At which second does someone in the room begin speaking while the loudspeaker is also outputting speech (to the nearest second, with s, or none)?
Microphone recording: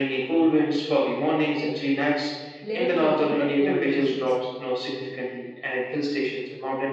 3 s